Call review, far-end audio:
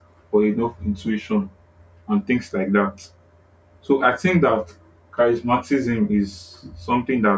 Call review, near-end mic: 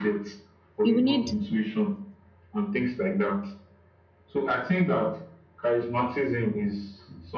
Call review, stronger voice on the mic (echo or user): user